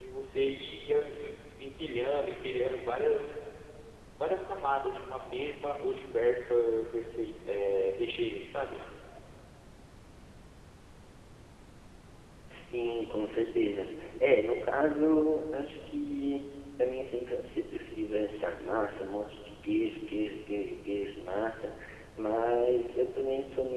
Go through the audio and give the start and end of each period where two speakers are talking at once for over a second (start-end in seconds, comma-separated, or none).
none